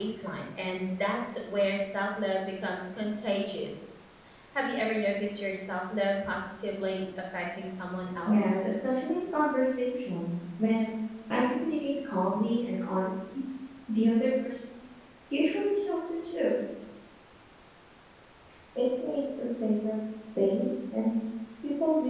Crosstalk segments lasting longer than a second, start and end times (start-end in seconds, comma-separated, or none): none